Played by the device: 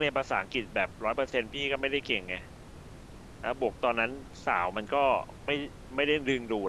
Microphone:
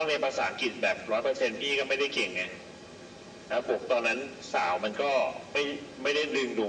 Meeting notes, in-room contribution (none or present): none